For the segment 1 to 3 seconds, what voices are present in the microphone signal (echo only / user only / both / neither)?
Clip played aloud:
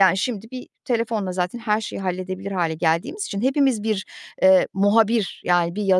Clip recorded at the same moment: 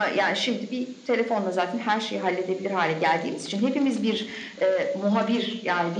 echo only